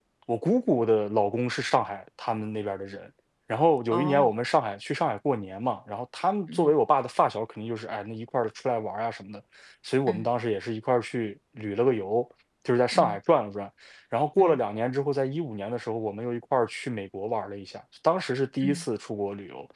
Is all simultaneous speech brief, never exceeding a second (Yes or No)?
Yes